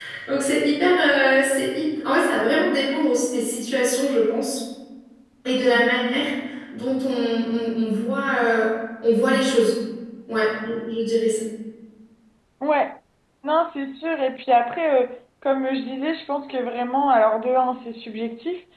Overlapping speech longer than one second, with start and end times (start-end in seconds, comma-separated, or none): none